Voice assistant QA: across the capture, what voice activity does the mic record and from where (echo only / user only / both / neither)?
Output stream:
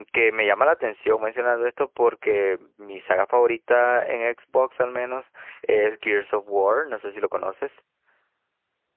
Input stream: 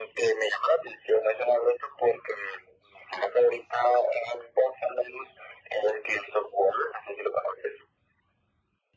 echo only